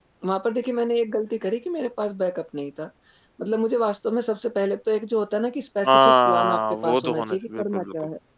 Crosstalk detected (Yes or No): Yes